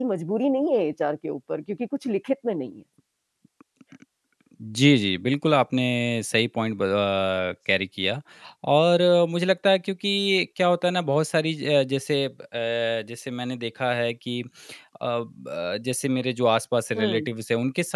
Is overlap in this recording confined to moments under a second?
Yes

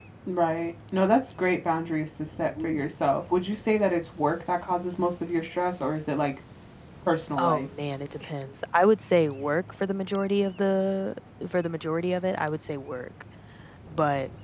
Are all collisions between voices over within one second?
Yes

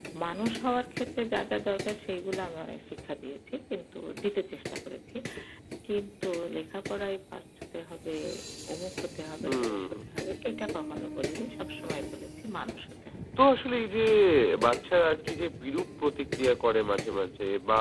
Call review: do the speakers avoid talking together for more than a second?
Yes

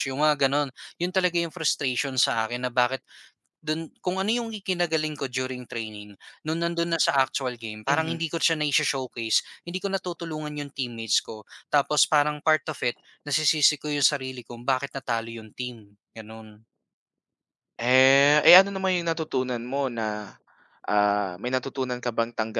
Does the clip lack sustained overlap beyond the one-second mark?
Yes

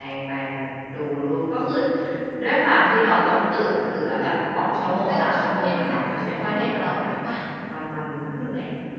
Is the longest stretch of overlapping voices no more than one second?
No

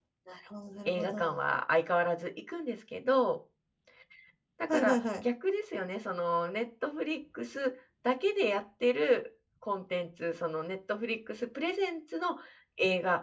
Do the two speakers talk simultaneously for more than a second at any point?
No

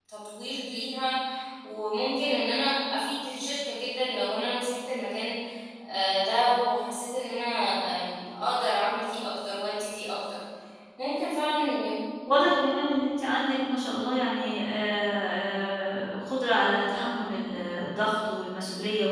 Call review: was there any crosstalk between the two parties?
No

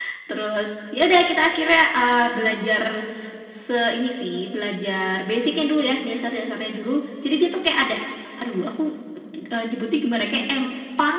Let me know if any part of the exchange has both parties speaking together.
No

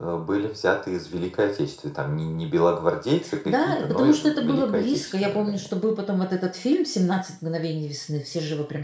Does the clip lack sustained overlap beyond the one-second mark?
No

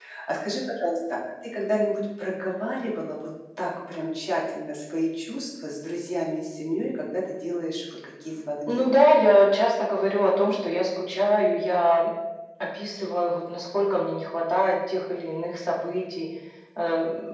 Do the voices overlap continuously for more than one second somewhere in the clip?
No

